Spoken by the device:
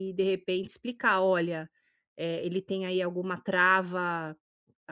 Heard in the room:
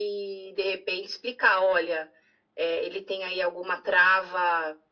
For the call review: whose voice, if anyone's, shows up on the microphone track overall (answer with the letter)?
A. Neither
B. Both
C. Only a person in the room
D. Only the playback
D